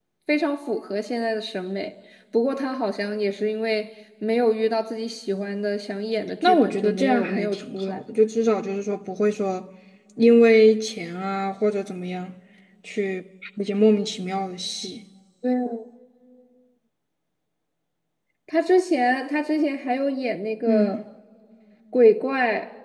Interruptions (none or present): present